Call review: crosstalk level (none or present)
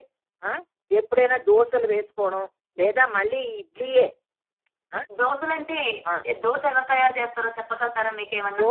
none